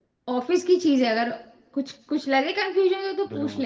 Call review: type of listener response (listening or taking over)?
taking over